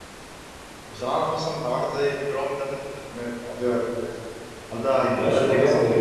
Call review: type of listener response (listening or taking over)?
taking over